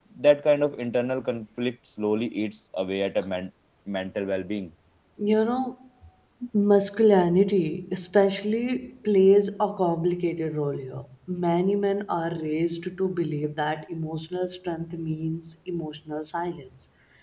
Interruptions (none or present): none